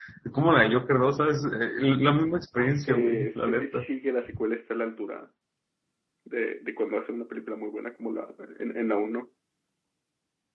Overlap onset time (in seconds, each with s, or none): 2.6 s